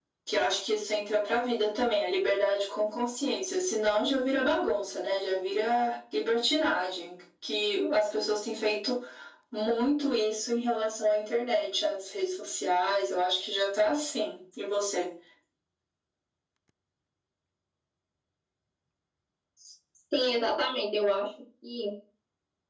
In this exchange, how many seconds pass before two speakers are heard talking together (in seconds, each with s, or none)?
none